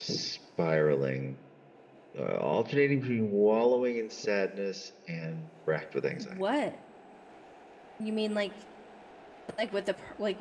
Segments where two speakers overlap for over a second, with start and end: none

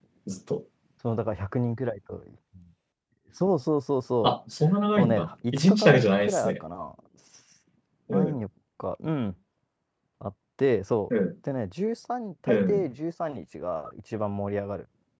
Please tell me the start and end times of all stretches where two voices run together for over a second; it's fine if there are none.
5.0-6.6

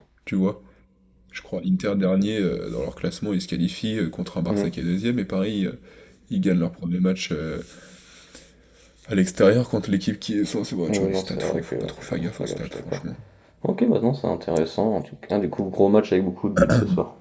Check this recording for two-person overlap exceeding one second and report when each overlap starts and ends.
10.9-13.0

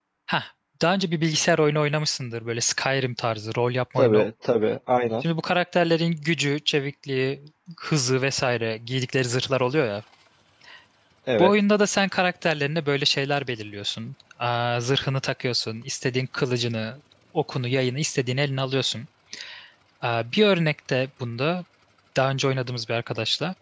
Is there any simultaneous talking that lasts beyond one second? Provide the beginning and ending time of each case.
none

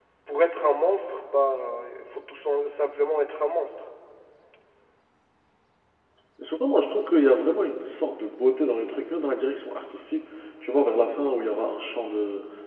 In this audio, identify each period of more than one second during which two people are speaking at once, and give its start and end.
none

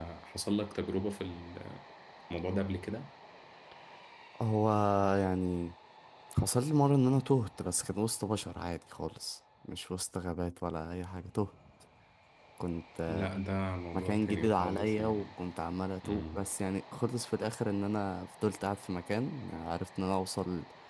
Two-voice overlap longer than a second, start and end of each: 13.9-15.3

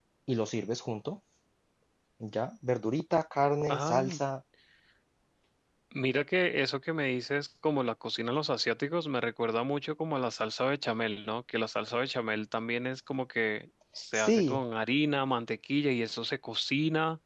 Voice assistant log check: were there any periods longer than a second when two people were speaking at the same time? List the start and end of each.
none

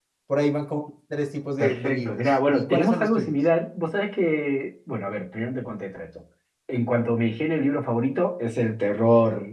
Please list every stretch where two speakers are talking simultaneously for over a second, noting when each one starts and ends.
1.6-3.4

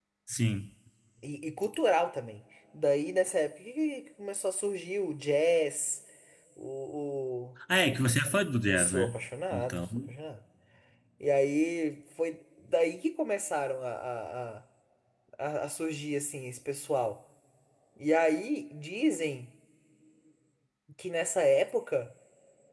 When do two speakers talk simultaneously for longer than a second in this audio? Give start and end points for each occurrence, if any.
none

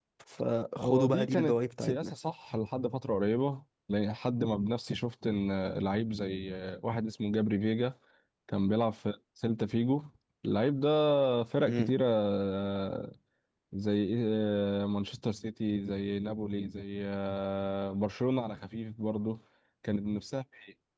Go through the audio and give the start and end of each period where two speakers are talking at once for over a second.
0.8-2.1

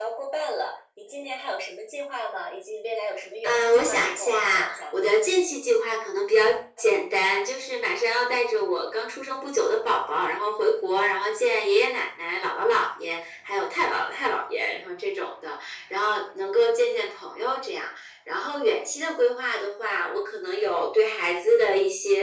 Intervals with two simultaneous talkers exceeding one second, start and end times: 3.4-5.1

